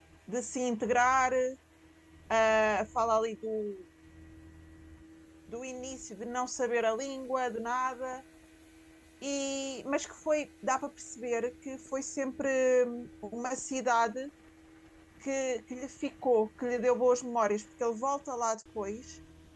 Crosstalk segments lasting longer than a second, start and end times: none

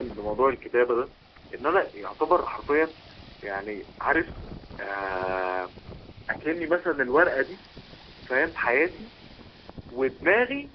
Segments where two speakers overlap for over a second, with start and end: none

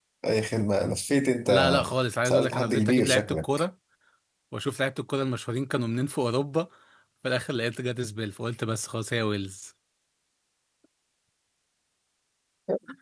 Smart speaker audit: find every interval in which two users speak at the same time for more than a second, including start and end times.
2.2-3.4

